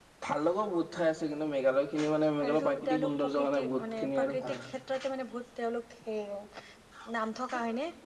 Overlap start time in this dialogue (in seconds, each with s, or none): 2.4 s